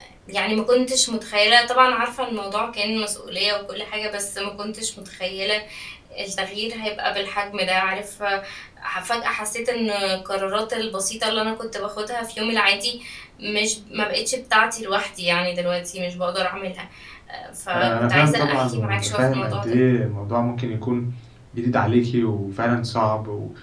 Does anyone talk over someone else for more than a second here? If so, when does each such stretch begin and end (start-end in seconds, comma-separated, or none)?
17.7-19.8